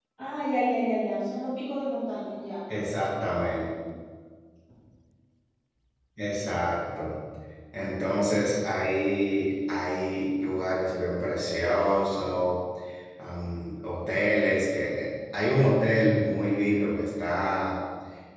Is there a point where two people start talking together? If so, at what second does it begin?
none

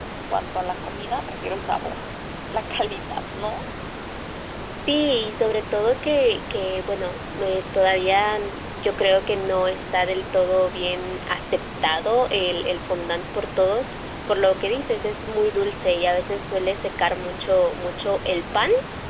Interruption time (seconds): none

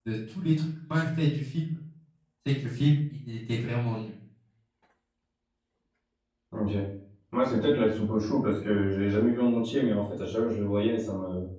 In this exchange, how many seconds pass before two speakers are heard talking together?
none

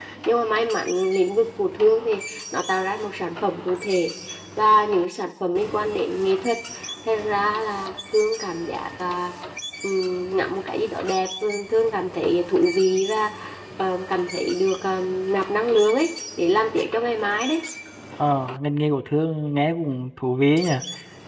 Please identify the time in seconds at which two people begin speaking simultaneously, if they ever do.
none

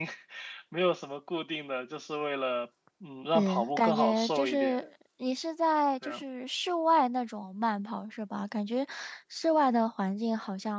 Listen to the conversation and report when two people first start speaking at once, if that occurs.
3 s

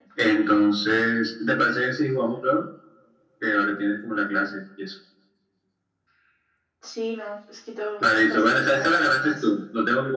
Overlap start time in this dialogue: 8 s

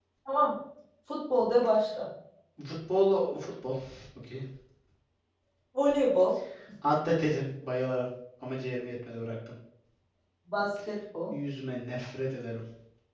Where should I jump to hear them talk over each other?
none

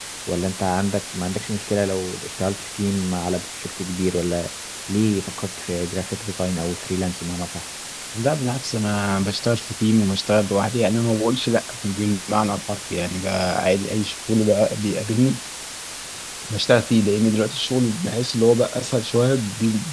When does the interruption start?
none

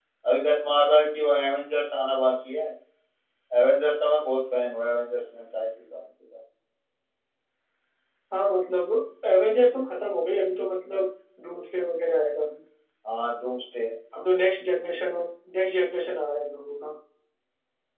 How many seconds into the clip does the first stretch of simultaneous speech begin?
none

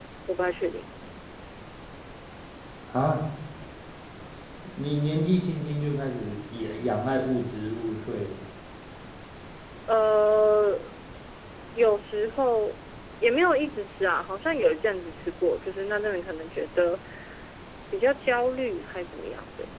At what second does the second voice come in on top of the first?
none

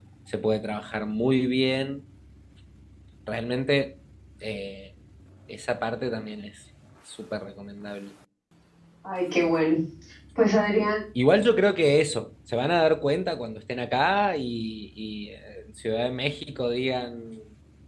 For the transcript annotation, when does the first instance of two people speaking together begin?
none

